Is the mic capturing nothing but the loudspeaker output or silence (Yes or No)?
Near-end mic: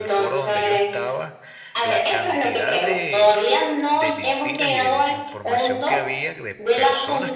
No